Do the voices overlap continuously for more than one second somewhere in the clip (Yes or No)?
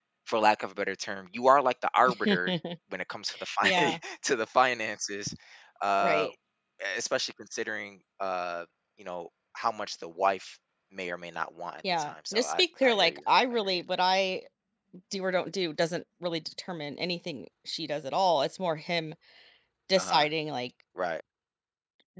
Yes